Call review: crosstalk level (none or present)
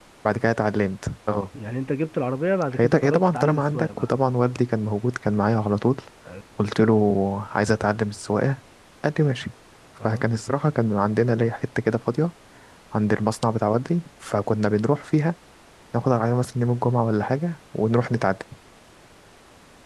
present